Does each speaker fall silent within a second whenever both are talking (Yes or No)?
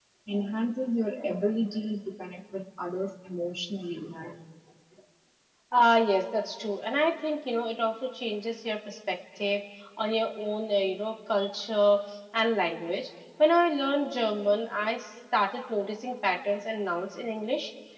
Yes